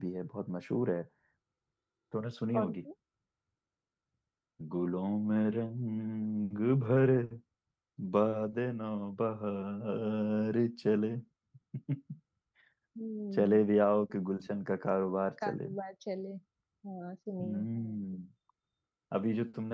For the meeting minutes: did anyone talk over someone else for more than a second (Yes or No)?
No